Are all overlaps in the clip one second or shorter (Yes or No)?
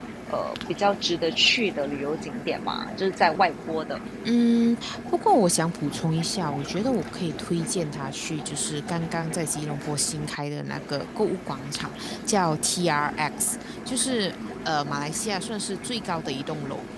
Yes